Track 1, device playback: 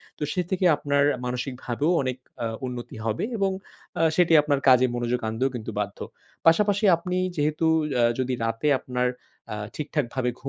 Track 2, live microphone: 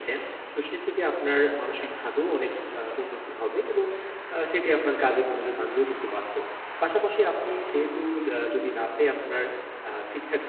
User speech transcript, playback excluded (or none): none